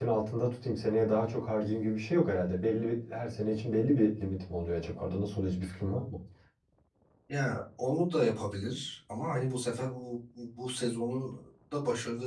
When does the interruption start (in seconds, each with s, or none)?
none